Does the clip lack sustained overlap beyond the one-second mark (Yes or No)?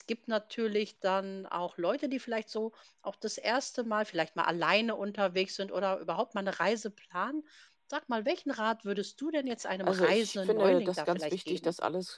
No